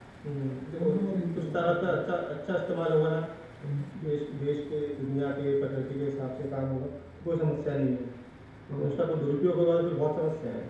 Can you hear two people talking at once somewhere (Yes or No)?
Yes